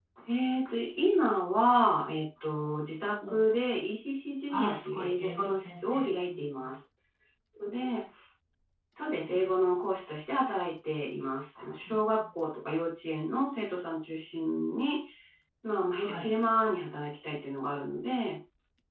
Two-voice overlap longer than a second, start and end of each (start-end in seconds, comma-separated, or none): 4.5-6.7